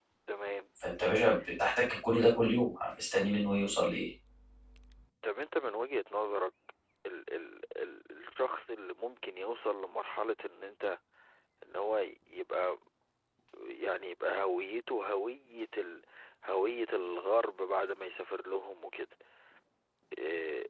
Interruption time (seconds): none

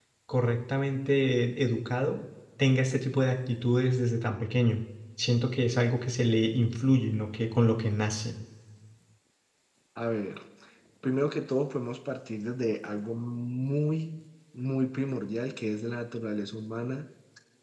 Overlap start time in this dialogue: none

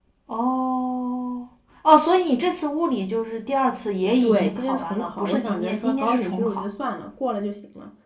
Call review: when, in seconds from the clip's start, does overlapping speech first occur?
4.2 s

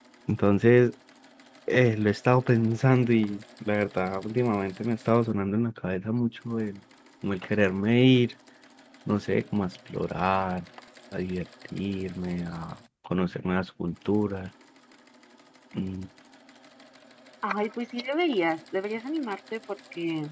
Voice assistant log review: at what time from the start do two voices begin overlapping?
none

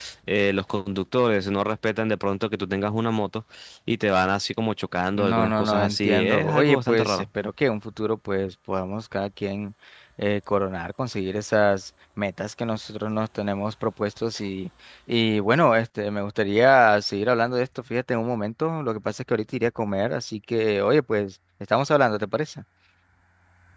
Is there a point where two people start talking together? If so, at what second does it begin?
5.2 s

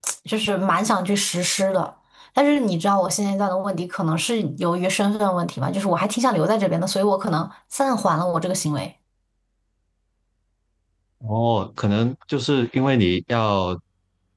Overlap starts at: none

